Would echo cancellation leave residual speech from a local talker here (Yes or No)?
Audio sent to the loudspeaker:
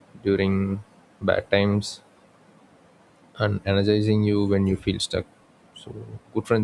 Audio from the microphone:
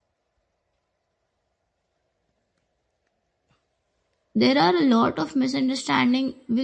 Yes